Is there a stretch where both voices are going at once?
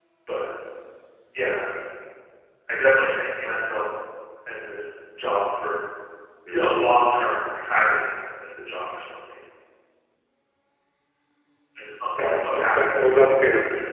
Yes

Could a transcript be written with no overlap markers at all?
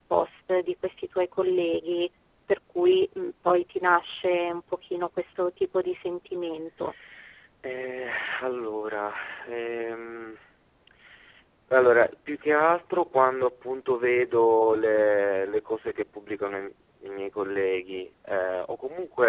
Yes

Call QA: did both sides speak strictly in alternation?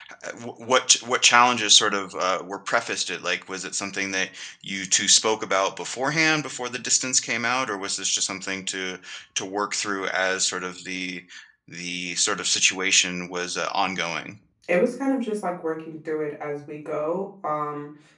Yes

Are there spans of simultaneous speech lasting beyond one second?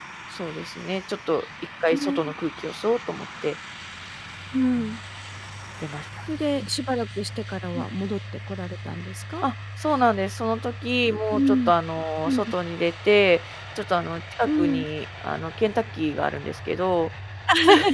No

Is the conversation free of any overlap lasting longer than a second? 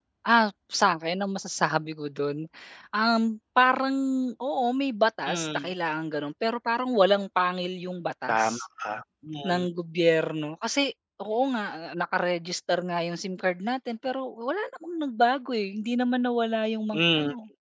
Yes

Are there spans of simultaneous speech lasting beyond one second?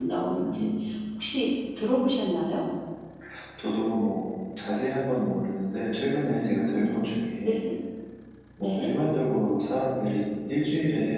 No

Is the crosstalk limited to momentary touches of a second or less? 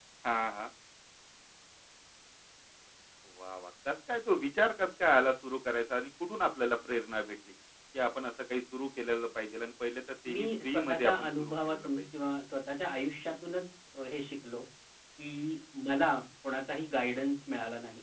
No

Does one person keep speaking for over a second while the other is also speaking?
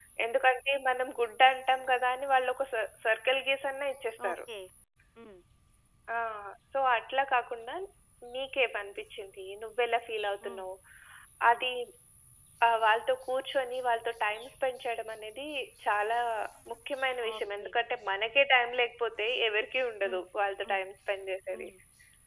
No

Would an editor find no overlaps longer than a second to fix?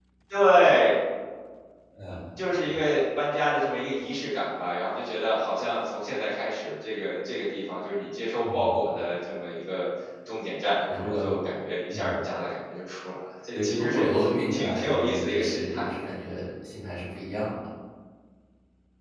No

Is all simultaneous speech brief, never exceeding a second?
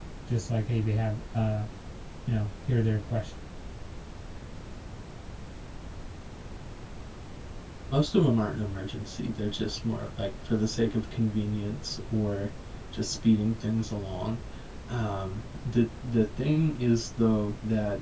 Yes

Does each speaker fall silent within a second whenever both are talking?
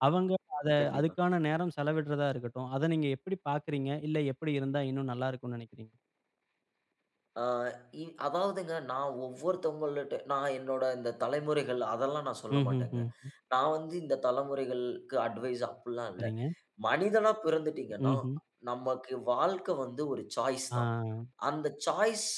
Yes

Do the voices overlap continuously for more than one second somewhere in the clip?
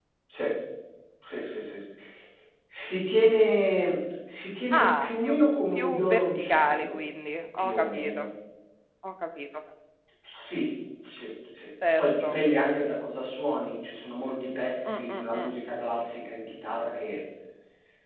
Yes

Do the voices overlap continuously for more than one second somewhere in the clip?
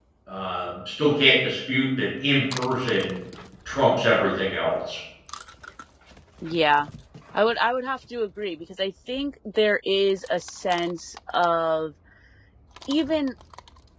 No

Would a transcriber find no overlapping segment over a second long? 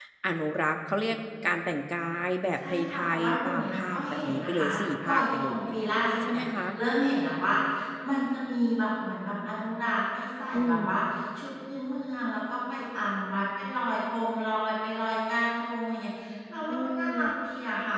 No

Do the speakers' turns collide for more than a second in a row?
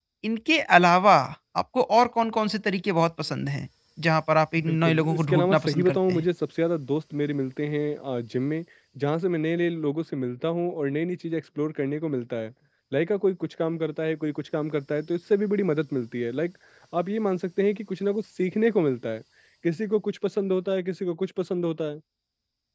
Yes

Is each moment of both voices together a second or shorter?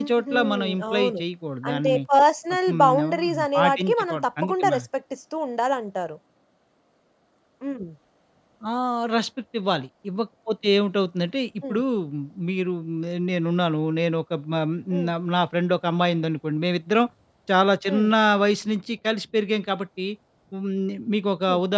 No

